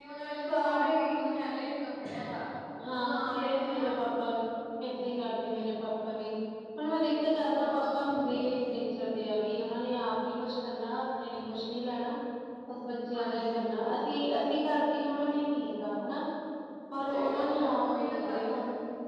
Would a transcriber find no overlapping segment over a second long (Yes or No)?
No